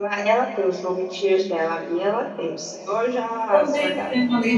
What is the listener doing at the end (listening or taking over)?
taking over